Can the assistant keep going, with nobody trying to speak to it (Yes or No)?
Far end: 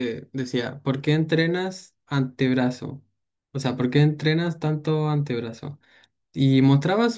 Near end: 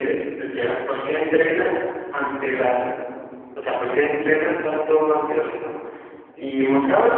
Yes